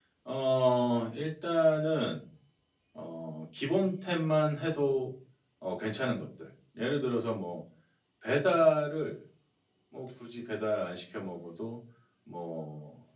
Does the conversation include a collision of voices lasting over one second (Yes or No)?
No